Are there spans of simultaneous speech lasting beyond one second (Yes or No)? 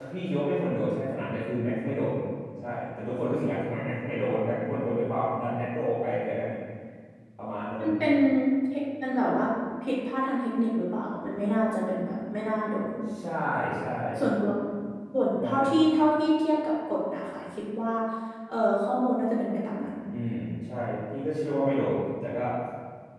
No